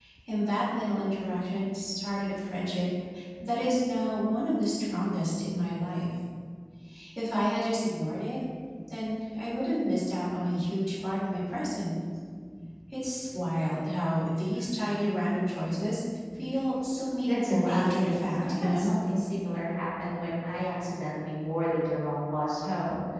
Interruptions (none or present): present